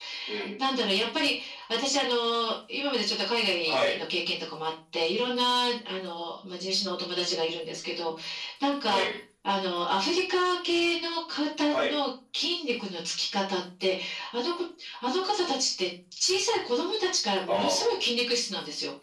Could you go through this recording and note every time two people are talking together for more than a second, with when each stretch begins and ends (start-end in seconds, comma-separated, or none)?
none